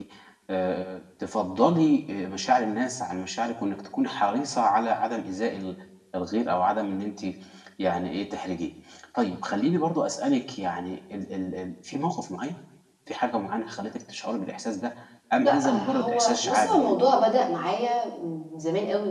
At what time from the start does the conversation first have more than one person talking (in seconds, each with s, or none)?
15.4 s